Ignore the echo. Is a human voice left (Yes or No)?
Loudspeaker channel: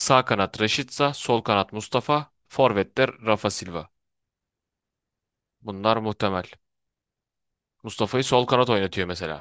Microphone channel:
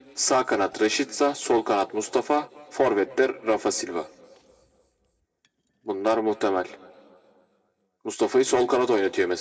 No